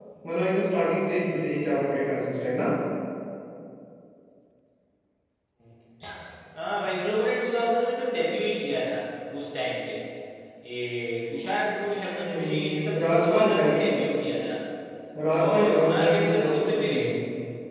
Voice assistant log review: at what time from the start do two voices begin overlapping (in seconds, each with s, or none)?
12.2 s